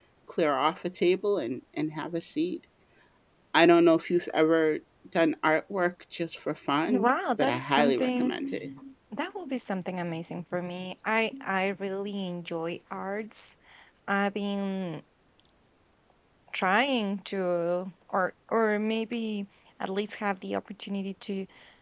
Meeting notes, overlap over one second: present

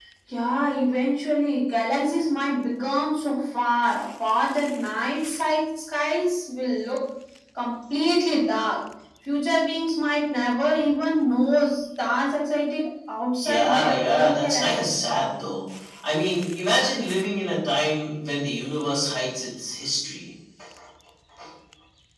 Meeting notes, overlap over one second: present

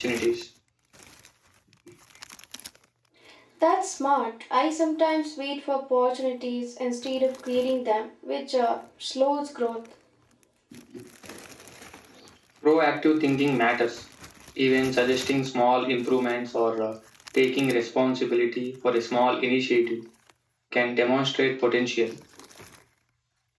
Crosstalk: none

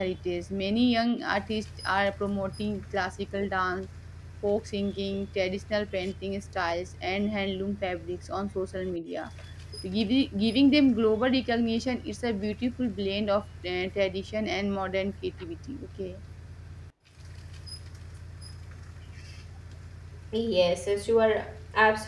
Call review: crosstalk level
none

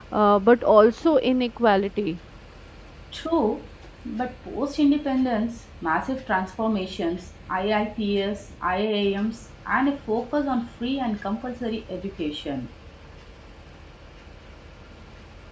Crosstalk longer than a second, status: none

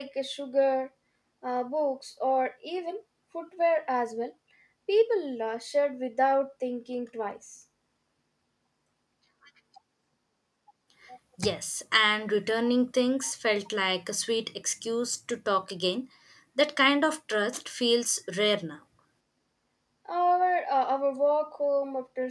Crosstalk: none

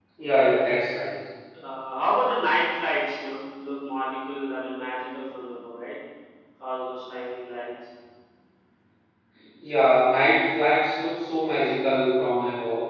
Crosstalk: none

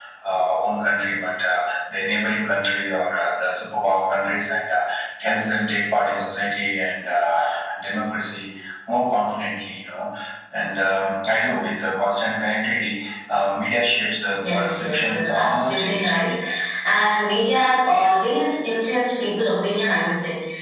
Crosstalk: present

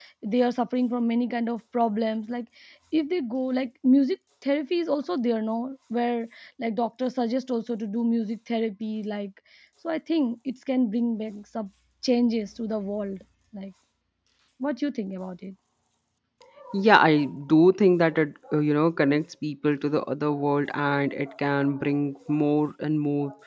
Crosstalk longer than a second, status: none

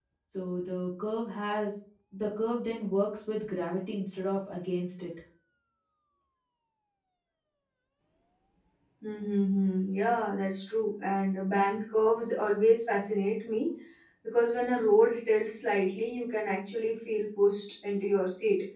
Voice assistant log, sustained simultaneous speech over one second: none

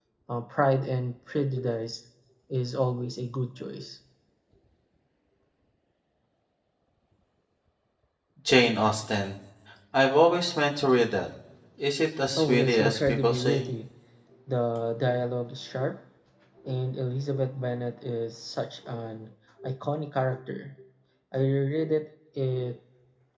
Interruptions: present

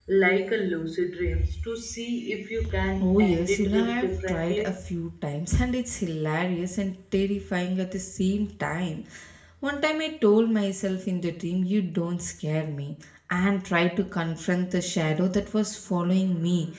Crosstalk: present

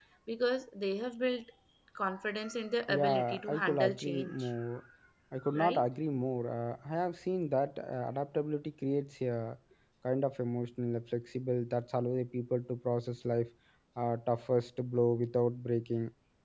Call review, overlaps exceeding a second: present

